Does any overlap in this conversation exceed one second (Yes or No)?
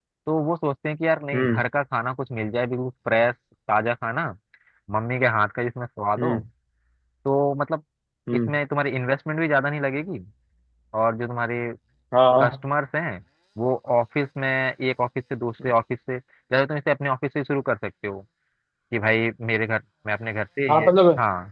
No